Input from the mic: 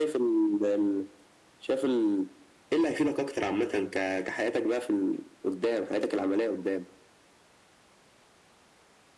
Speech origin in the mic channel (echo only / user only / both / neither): echo only